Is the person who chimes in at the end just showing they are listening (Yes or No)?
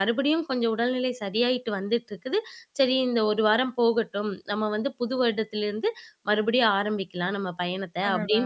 Yes